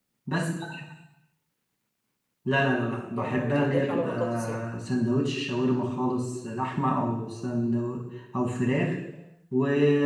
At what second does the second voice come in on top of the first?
3 s

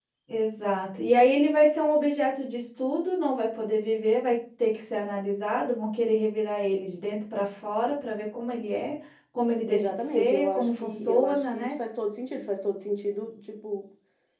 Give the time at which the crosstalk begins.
10 s

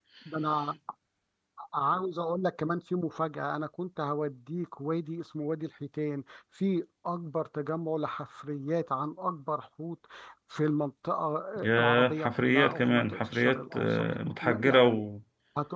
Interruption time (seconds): 12 s

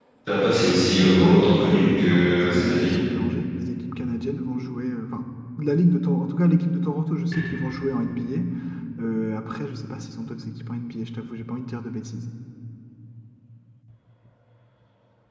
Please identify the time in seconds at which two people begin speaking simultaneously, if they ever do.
1 s

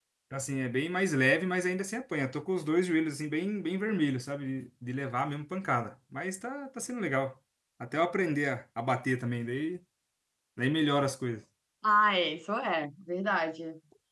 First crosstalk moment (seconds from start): none

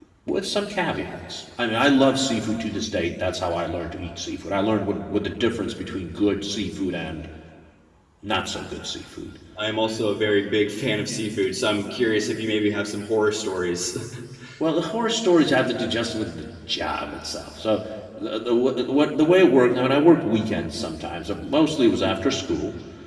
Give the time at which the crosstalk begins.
none

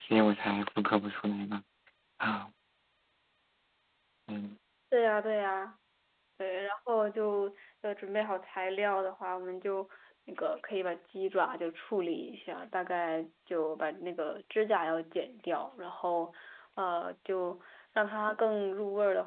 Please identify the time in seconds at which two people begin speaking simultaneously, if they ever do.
none

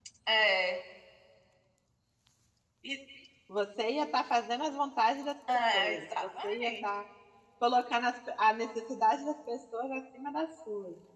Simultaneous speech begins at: 5 s

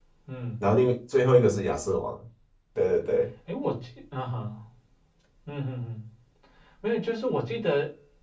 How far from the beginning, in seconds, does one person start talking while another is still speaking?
none

